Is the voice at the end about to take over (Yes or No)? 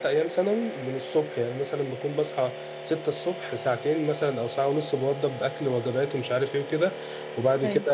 No